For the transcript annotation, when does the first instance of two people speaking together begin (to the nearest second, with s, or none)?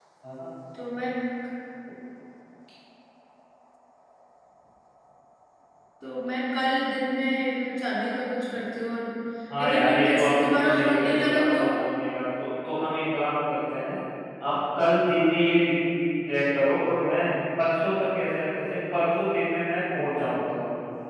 10 s